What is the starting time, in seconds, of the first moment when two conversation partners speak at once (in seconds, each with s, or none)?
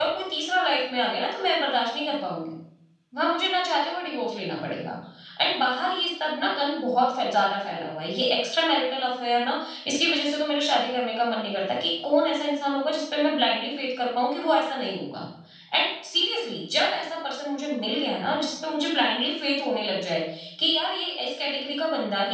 none